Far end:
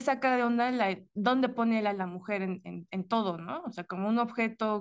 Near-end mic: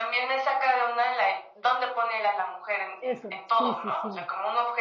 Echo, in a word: present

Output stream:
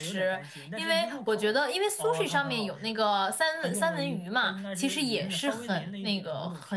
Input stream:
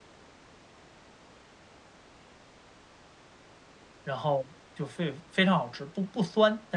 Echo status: none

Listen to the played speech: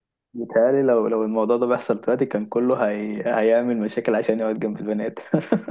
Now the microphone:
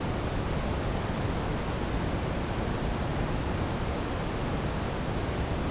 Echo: none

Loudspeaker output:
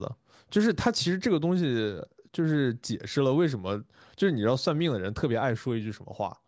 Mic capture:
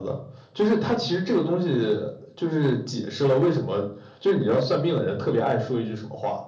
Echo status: present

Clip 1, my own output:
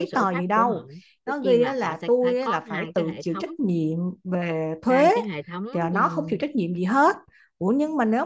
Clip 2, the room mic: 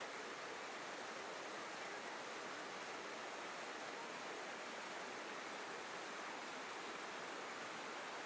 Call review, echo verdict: none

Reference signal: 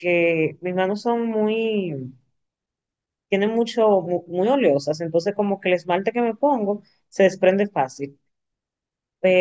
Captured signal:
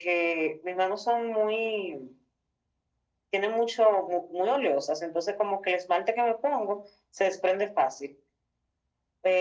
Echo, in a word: present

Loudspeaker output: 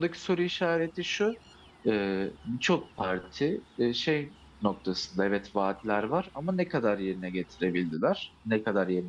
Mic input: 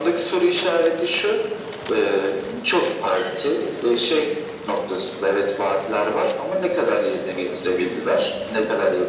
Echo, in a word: present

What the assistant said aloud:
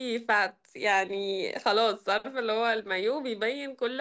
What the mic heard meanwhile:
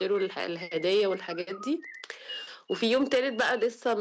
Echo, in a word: none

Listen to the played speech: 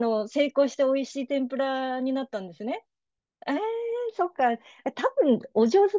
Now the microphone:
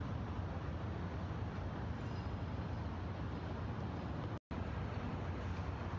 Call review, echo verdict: none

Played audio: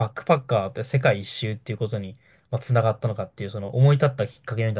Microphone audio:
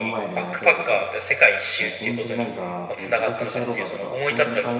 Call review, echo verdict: present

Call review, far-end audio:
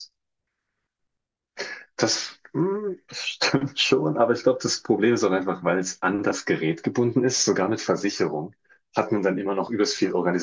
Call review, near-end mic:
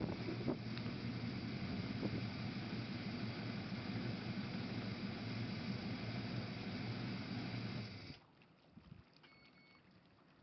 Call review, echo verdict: none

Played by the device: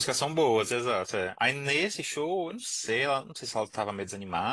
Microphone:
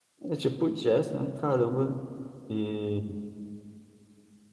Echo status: none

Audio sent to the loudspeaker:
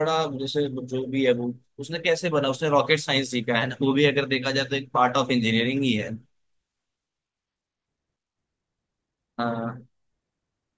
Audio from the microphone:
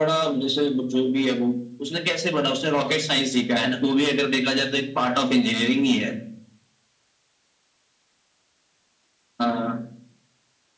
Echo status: present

